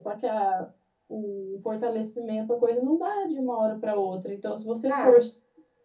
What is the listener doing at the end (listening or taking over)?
listening